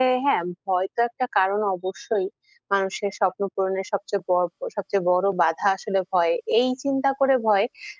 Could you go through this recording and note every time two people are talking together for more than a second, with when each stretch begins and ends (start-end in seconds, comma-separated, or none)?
none